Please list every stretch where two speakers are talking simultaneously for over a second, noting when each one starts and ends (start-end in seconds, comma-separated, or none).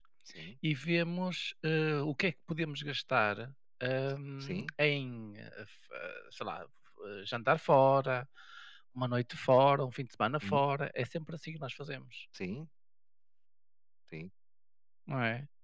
none